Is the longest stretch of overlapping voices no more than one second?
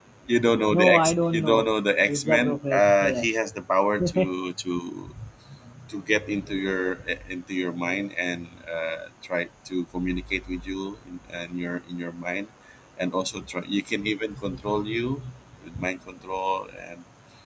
No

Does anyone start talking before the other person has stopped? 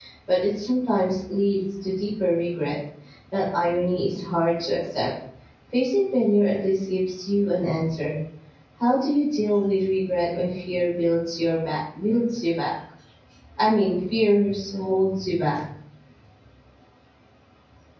No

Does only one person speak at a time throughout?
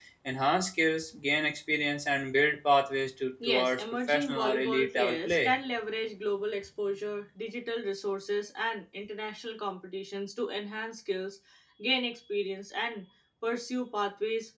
No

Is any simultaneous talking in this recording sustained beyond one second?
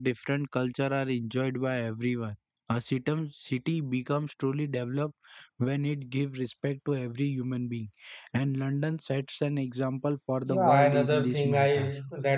Yes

